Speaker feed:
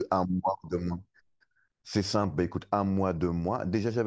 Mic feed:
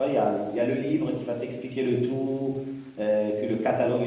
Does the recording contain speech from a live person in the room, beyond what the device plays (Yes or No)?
Yes